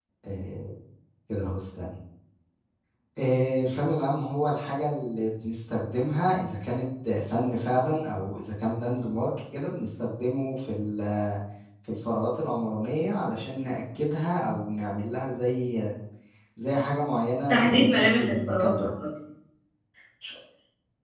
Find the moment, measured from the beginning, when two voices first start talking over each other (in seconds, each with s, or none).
17.5 s